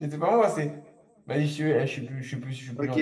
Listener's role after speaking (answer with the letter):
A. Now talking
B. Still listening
A